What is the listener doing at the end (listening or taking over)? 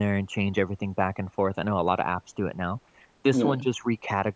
listening